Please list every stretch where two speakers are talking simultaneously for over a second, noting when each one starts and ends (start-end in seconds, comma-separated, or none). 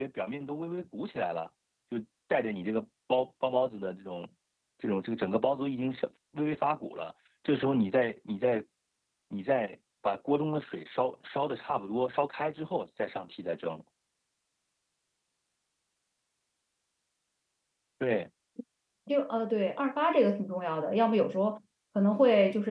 none